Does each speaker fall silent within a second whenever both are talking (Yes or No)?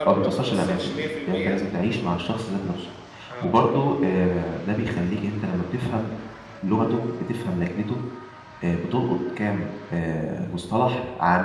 No